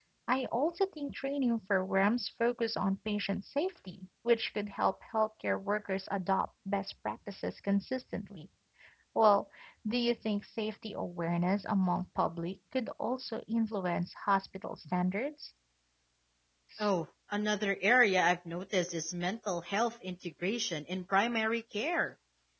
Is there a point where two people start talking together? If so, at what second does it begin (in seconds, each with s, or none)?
none